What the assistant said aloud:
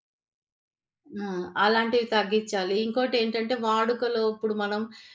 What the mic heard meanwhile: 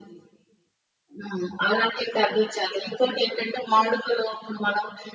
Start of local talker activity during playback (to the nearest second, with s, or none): none